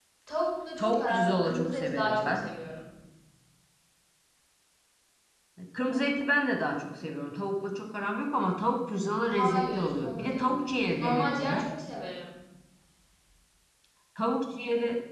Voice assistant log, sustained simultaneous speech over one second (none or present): present